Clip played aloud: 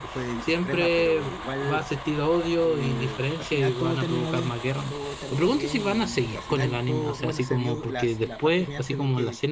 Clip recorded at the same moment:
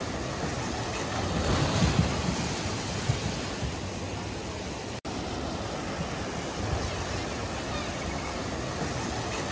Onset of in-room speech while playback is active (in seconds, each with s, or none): none